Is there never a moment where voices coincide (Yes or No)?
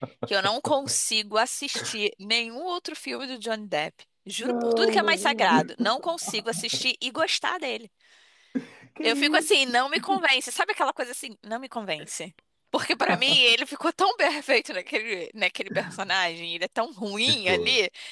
No